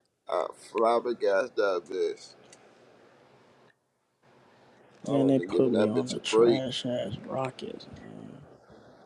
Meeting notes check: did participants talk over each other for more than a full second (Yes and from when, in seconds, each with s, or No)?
Yes, from 5.1 s